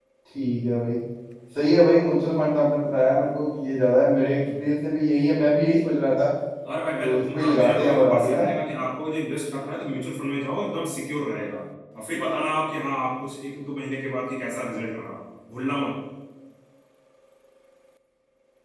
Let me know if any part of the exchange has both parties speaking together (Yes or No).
Yes